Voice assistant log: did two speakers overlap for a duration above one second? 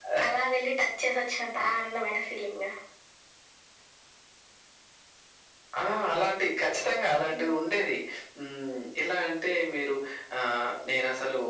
No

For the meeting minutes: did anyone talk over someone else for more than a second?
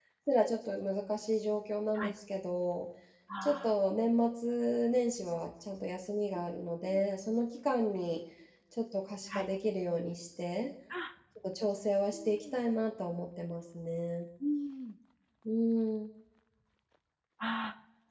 No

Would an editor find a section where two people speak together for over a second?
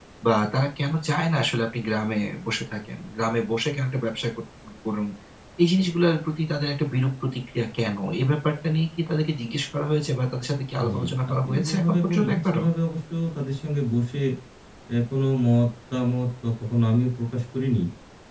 Yes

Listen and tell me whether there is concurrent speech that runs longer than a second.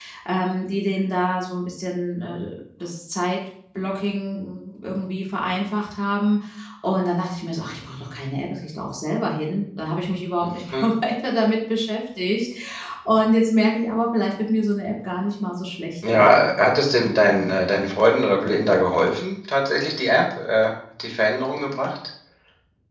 No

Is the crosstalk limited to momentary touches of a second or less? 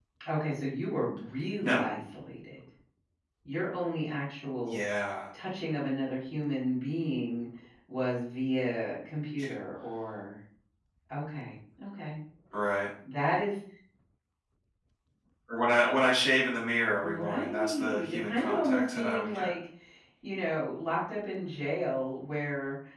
No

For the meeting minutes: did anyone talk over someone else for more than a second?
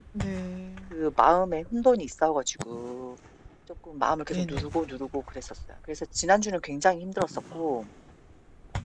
No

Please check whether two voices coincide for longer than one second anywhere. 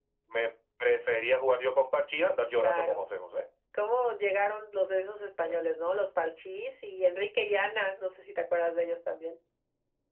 No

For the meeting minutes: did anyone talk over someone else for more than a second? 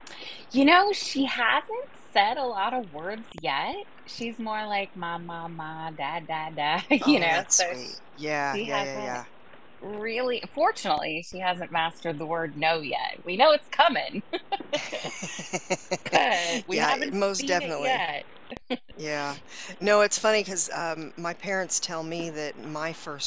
Yes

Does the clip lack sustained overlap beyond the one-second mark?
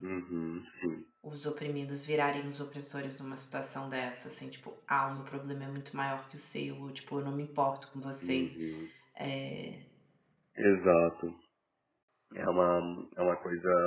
Yes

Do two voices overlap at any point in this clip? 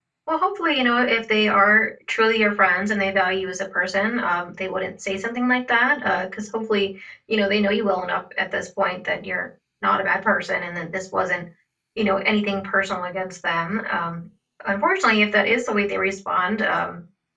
No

